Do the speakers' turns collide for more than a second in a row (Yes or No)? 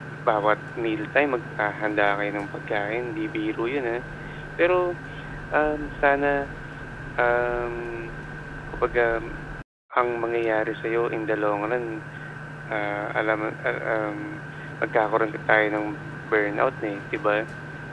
No